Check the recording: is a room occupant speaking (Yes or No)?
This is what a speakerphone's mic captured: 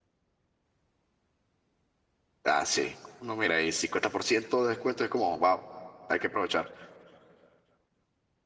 Yes